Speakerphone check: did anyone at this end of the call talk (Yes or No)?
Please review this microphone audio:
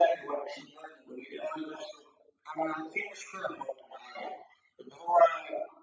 No